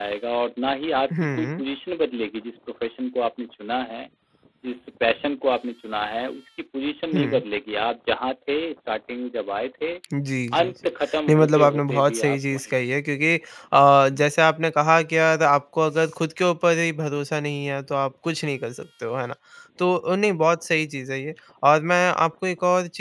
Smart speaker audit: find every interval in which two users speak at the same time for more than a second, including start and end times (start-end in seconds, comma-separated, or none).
11.3-12.8